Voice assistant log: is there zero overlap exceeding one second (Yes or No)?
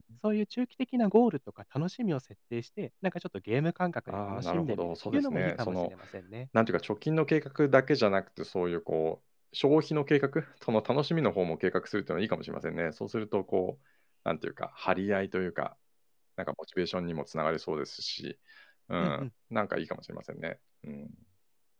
No